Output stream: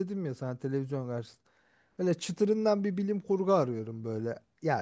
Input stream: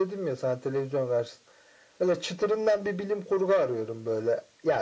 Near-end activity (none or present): none